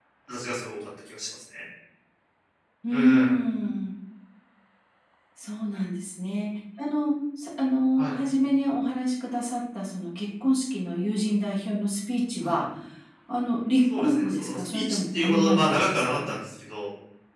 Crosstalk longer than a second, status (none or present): present